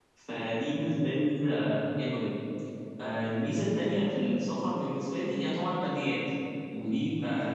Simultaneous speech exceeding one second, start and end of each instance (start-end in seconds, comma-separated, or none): none